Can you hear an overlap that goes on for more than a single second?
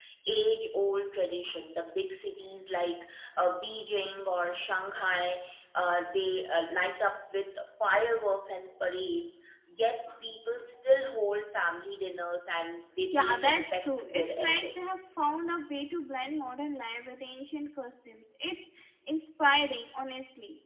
Yes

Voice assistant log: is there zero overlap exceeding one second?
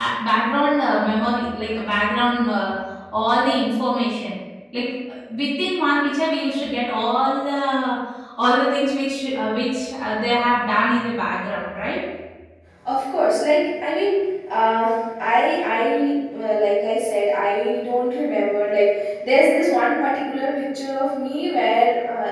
Yes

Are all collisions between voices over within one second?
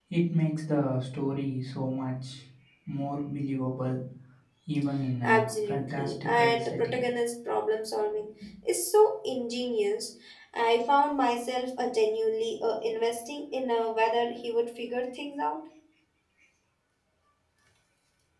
No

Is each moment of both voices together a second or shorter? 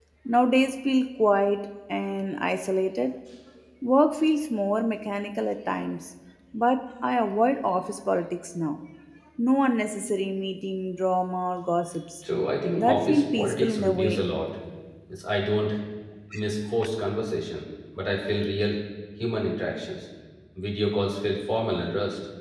No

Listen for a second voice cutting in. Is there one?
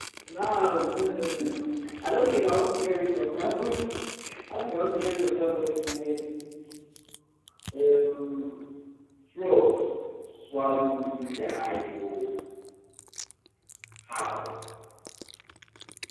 No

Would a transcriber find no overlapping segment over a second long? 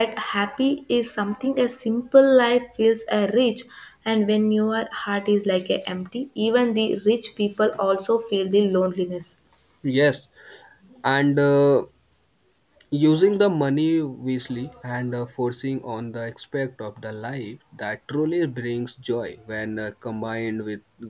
Yes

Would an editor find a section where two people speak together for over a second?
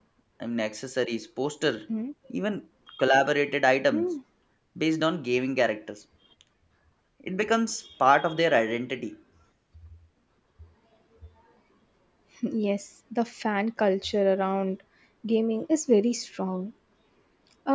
No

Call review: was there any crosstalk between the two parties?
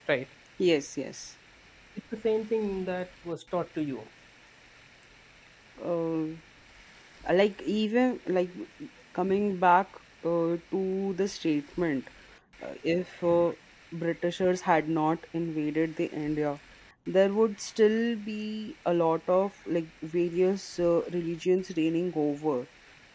No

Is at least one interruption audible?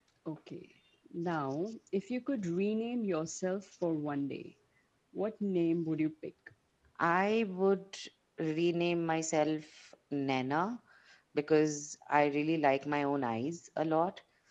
No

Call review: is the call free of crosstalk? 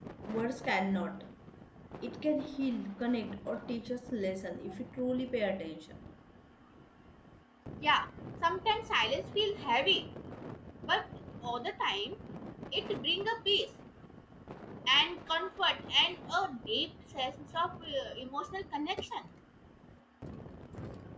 Yes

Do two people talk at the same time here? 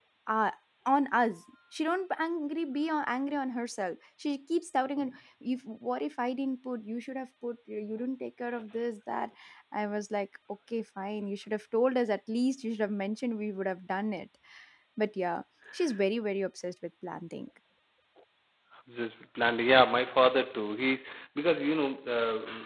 No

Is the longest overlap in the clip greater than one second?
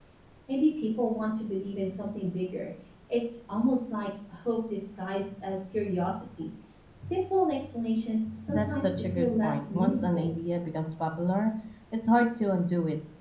Yes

